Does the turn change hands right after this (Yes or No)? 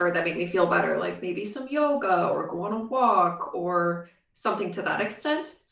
No